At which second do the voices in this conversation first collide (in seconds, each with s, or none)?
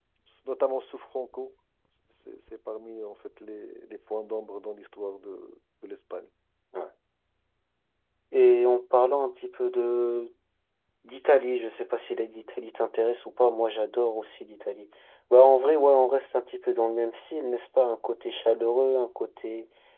none